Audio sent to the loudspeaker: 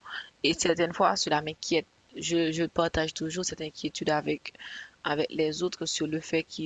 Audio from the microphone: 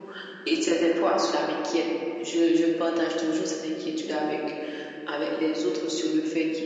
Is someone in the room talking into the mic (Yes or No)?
No